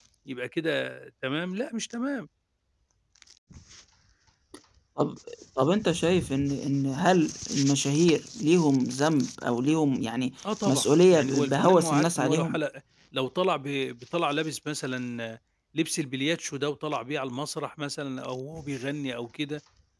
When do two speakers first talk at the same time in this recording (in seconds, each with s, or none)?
10.4 s